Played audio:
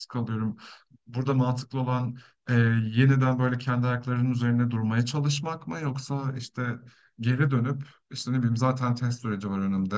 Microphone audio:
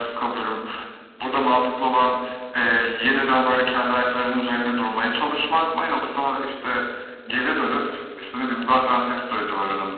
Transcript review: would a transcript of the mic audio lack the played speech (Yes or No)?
No